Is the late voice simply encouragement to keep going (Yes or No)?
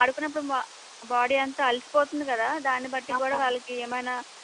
Yes